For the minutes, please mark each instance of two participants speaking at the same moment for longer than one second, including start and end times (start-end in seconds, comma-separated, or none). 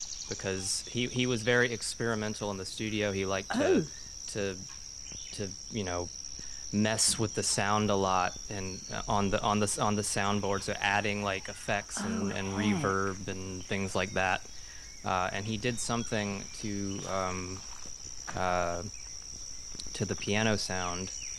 11.9-13.2